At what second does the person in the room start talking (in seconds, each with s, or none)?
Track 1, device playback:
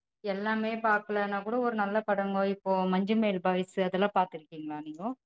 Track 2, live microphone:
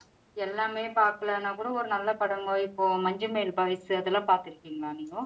none